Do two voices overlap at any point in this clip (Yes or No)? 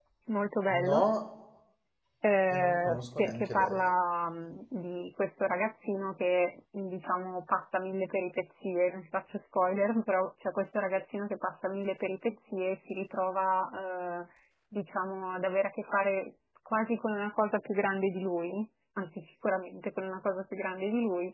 Yes